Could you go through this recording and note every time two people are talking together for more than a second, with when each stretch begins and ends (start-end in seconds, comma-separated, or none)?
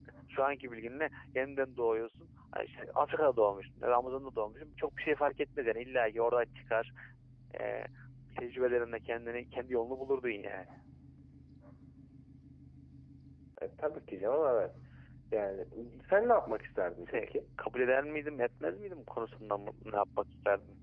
none